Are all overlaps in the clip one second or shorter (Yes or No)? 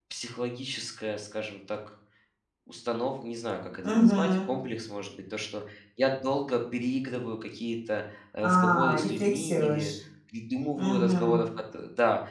No